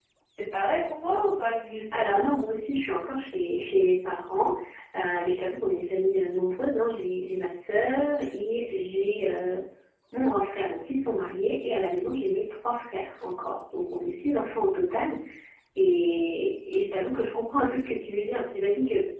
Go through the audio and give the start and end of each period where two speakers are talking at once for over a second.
none

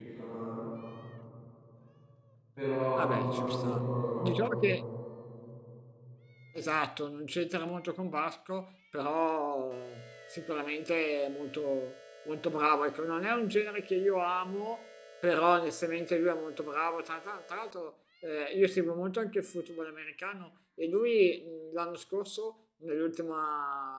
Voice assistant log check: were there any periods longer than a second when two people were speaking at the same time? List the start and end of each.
3.0-4.8

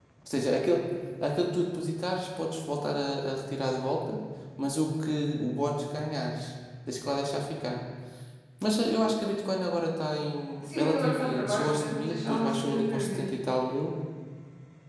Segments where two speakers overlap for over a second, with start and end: 10.8-13.2

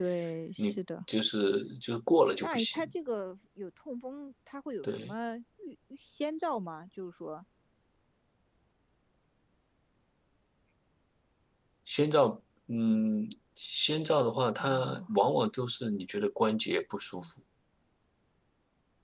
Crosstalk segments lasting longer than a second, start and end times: none

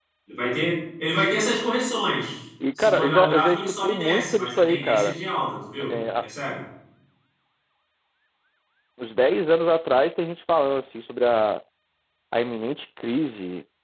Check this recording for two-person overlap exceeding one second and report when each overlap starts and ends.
2.8-5.2

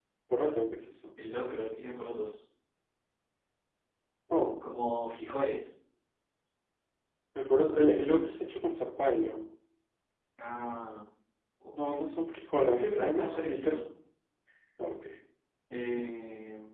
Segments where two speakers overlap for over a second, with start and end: 12.6-13.8

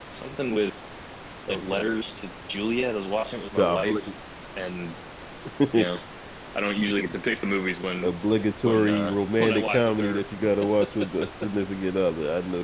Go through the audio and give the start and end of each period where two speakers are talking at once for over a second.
8.6-10.2

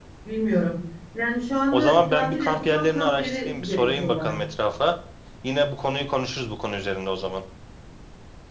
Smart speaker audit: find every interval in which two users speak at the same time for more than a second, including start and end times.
1.7-4.4

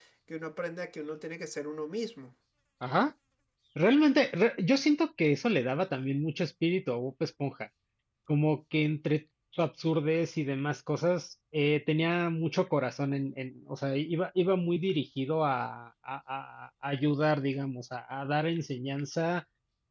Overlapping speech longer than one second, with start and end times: none

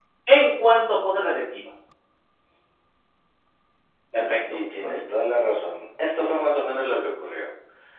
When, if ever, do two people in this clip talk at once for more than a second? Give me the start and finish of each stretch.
none

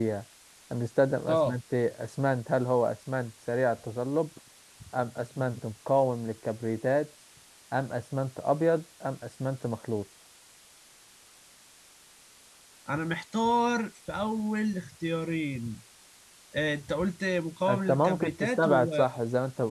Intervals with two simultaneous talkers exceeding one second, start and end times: 17.7-18.9

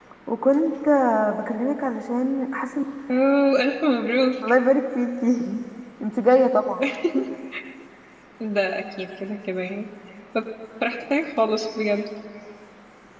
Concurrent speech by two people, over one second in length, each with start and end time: none

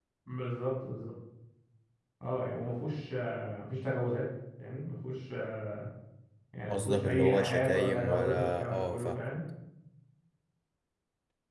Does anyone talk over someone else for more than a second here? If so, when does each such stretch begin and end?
6.7-9.2

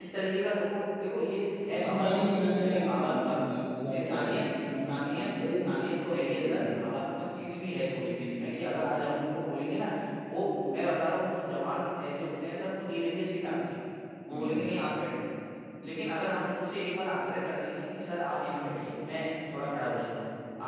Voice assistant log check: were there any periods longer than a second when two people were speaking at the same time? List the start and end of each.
1.7-3.4, 4.0-5.5

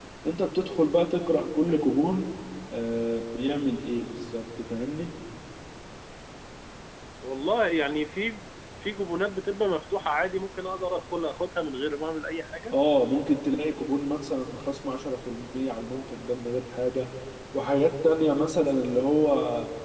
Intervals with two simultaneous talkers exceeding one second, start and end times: none

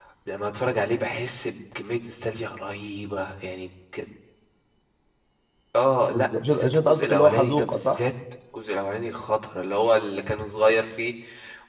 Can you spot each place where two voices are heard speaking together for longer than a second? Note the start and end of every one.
6.1-8.0

